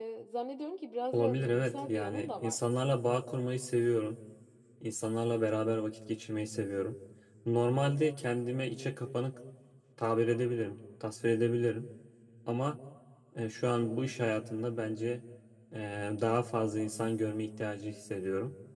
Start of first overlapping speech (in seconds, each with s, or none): 1.1 s